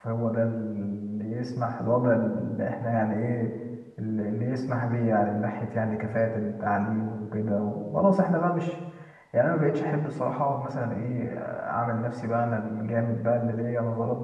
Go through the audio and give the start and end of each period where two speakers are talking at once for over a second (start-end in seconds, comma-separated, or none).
none